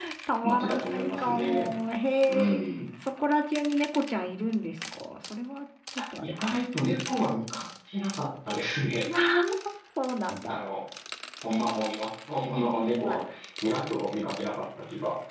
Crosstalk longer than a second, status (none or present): present